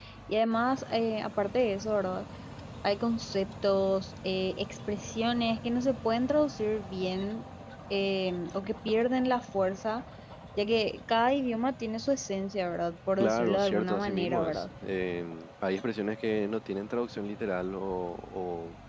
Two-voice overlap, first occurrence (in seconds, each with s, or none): 13.2 s